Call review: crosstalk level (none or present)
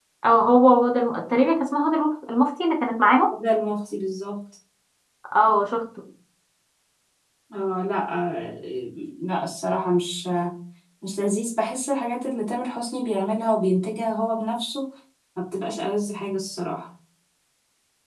none